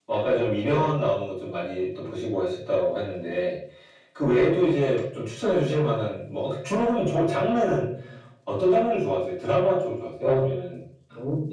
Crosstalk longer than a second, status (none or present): none